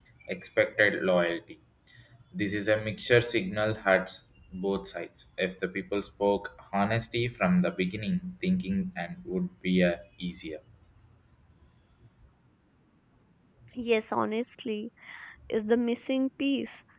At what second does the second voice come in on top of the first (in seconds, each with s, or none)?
none